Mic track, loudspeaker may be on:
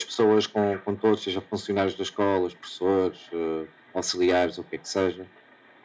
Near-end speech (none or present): none